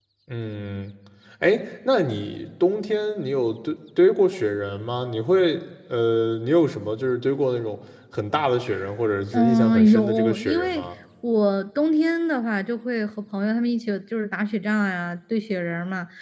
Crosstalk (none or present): present